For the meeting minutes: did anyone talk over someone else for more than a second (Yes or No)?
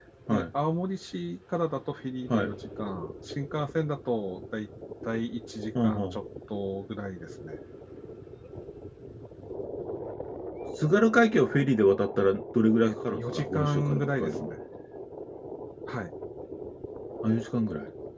Yes